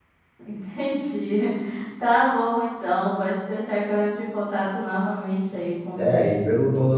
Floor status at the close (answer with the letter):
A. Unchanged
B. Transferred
B